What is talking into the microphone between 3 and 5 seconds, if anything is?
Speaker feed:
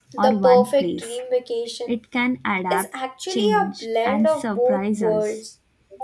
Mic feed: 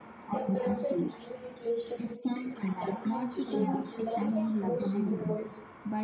both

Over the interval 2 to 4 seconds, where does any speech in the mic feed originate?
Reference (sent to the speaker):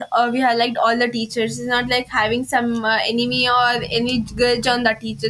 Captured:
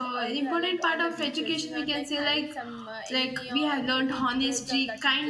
both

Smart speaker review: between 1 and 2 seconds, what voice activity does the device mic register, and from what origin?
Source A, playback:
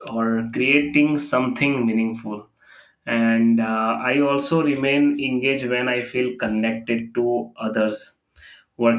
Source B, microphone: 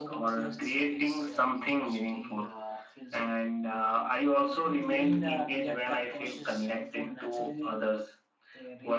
both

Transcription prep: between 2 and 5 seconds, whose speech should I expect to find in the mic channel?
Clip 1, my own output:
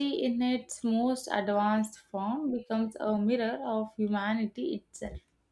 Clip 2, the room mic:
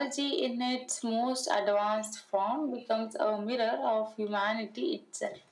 echo only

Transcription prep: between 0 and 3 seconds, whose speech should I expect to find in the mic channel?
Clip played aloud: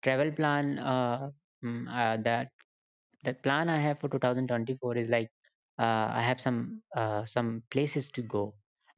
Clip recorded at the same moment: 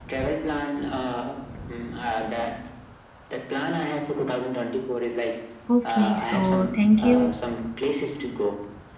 echo only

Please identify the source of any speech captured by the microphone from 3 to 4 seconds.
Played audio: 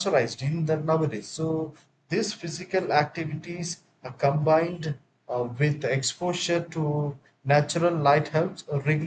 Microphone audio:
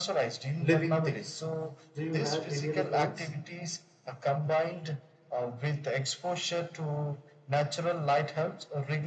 both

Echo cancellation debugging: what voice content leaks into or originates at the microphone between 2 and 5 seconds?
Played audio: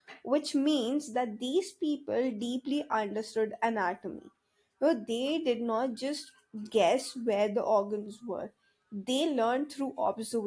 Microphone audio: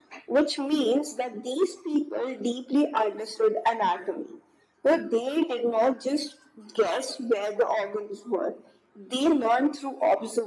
echo only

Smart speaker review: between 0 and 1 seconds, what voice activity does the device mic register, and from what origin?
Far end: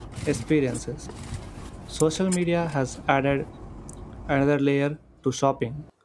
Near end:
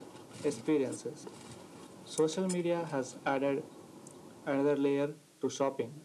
echo only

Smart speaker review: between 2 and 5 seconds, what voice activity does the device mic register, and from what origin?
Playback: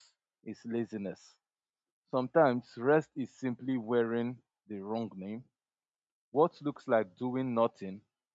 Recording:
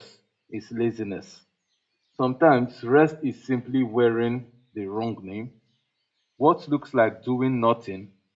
echo only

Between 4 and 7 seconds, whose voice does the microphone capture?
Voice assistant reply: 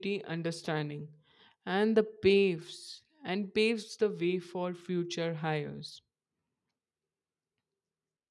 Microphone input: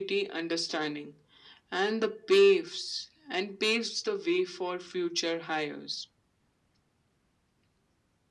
echo only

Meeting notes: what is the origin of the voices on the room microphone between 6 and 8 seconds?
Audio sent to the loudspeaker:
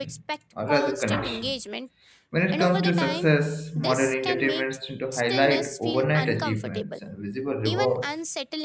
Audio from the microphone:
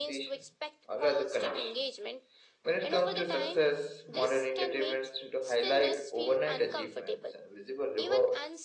echo only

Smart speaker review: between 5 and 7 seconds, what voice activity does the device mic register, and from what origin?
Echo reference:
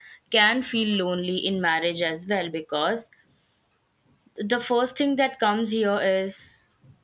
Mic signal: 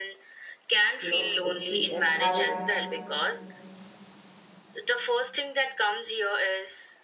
echo only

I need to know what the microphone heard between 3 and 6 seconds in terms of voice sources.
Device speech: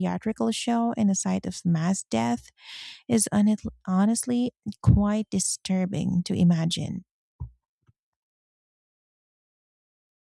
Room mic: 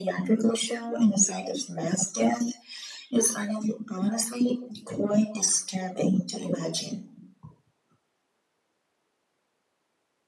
echo only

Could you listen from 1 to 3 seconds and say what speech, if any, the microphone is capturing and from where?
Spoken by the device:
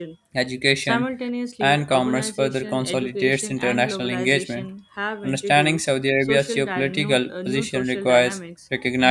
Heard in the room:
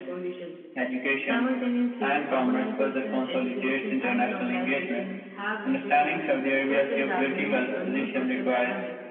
echo only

